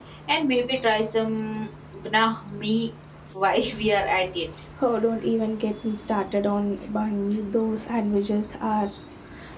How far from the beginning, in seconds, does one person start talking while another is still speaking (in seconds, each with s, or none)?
none